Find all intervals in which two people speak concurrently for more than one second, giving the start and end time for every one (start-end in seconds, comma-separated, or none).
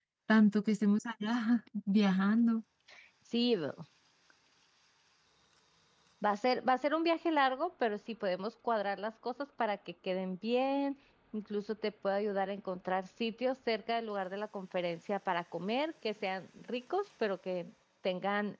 none